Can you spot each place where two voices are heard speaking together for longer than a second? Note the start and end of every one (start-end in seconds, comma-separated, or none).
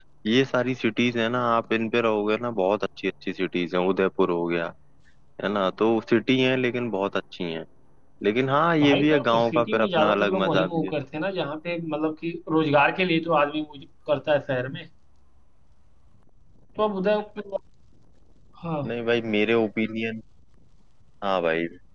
8.8-10.9